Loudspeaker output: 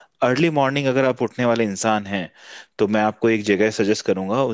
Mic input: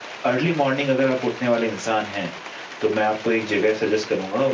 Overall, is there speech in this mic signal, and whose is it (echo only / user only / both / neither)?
echo only